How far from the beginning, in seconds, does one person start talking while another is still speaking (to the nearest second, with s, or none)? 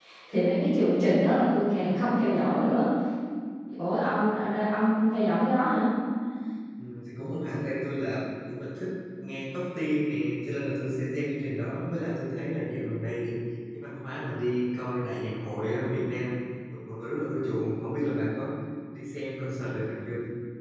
none